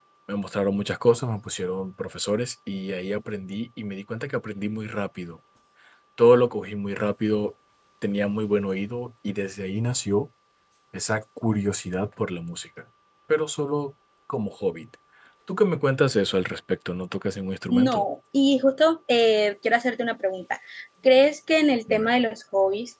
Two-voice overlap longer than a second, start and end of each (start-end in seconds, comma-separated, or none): none